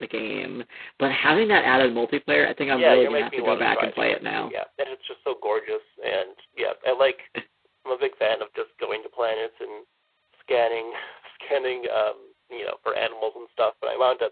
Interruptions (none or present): present